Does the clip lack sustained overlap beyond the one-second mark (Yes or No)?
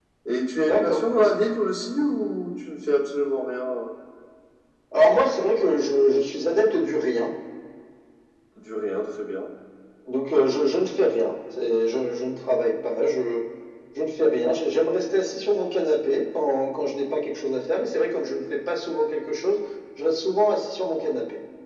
Yes